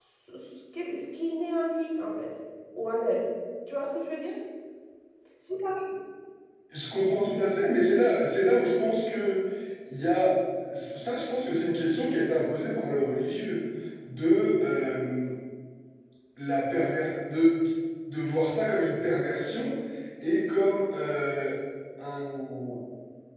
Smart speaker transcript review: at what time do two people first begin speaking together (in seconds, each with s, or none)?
none